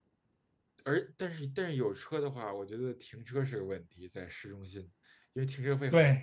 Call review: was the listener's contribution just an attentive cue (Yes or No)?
No